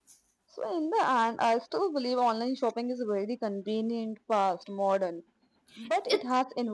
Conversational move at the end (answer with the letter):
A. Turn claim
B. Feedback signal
B